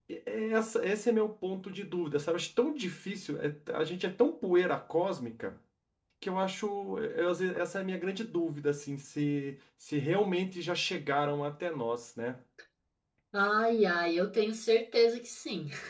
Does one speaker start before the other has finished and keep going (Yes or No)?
No